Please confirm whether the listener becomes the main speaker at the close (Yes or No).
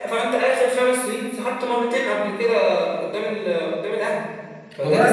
Yes